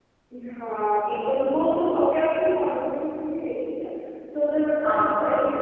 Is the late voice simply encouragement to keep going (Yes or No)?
Yes